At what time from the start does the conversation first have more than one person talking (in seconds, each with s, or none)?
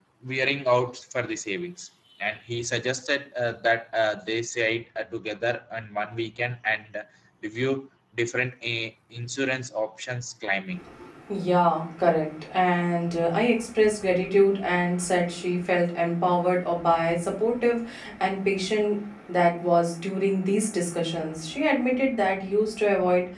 none